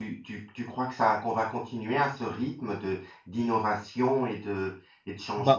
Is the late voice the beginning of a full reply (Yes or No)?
Yes